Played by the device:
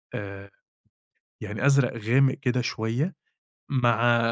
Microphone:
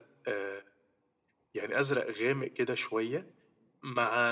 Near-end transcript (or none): none